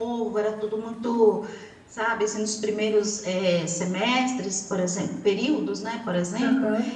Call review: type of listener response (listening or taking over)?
listening